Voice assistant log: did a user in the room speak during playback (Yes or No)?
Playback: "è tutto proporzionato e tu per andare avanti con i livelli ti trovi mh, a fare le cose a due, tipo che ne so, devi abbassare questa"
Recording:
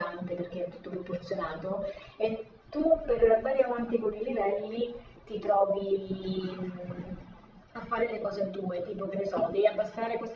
No